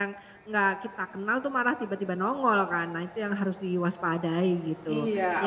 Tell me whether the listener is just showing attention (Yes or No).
No